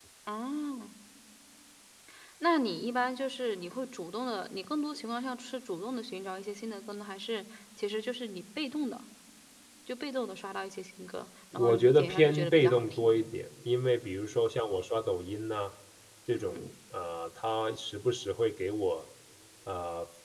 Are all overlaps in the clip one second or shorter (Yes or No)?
No